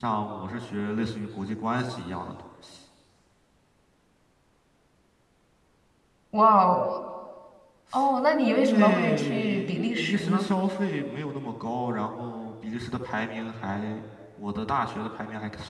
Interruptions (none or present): present